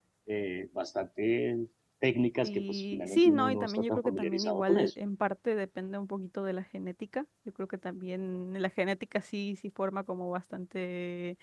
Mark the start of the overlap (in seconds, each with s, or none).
2.4 s